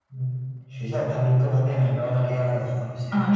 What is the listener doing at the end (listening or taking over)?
taking over